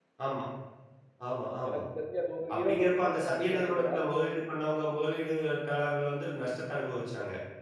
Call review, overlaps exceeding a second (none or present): present